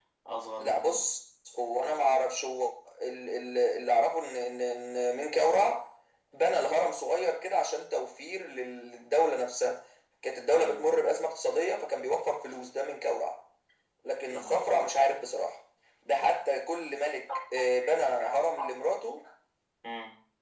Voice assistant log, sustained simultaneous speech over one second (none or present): none